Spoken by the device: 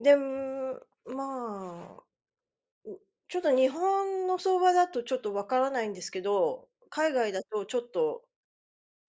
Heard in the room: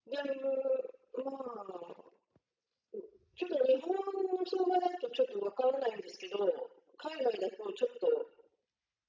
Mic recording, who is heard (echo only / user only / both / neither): echo only